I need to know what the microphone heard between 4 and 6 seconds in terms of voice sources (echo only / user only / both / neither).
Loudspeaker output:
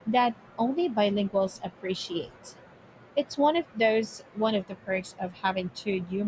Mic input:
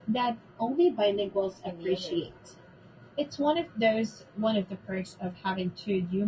echo only